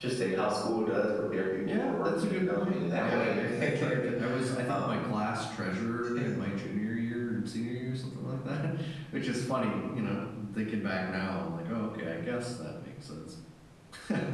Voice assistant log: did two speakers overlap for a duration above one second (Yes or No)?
Yes